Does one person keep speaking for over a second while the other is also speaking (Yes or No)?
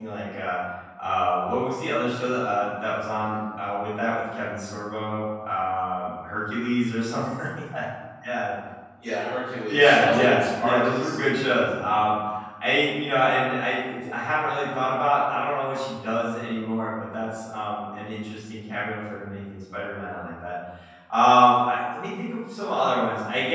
Yes